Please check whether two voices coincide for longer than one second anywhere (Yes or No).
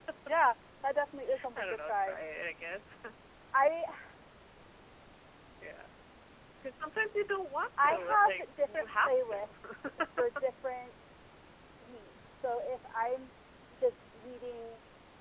Yes